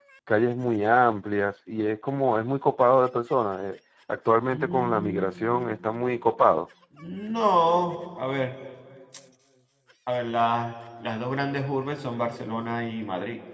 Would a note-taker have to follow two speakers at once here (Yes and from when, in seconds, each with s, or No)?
Yes, from 4.5 s